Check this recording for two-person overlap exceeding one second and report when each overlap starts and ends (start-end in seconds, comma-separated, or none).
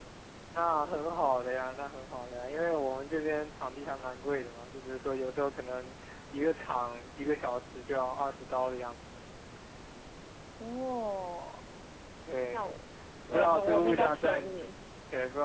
13.3-14.7